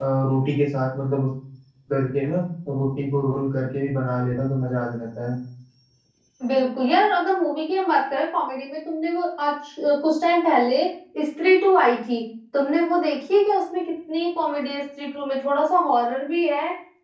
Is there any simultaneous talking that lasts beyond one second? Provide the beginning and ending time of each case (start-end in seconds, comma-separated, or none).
none